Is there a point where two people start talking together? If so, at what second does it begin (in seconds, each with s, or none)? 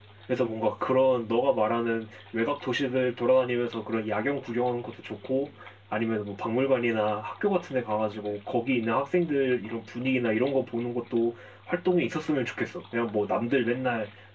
none